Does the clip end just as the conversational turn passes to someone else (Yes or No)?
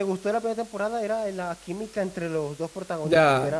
Yes